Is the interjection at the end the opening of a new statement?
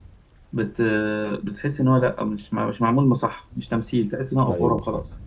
Yes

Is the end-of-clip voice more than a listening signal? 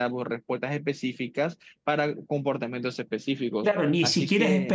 Yes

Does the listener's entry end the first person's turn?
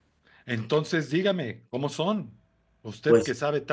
No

